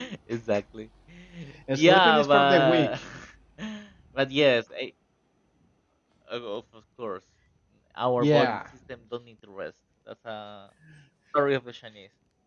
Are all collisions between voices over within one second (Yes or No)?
No